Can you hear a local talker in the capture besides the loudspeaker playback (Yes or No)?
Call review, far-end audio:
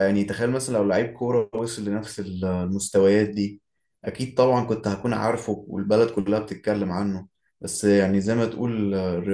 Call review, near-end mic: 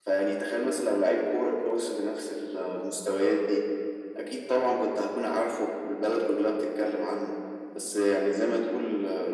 No